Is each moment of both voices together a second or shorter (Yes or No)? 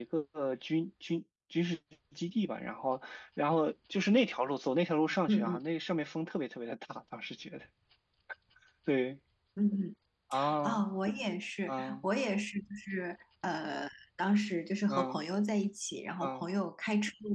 Yes